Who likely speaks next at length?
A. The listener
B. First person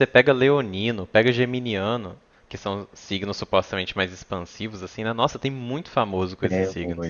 A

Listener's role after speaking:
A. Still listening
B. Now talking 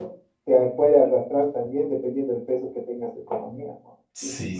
B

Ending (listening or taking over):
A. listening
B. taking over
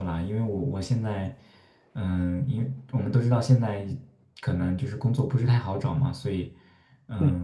A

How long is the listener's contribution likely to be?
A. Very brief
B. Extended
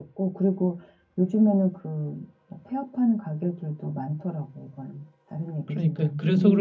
B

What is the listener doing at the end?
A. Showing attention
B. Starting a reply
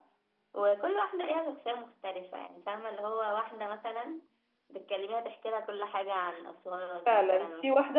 B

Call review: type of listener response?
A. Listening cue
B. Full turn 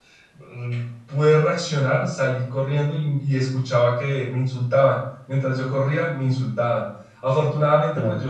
A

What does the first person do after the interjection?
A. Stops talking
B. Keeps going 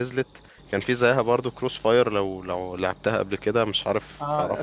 A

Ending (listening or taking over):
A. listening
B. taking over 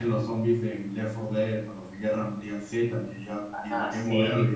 A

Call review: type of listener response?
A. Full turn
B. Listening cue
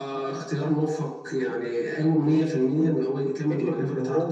A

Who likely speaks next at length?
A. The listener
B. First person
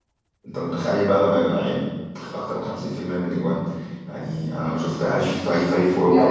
A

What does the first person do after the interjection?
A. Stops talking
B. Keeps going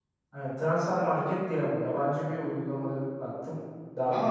A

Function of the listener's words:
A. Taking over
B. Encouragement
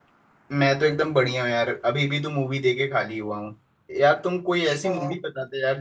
B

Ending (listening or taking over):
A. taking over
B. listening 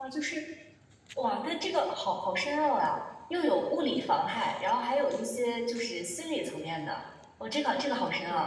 B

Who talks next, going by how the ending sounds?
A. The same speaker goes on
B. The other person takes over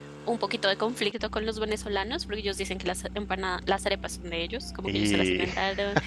A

